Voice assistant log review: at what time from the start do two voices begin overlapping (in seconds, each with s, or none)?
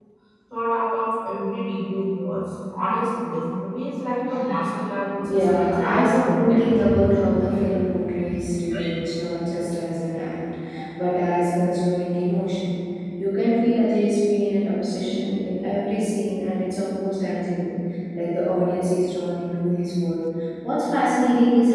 5.2 s